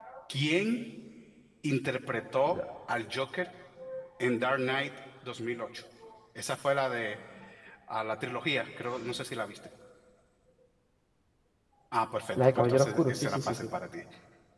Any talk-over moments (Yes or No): Yes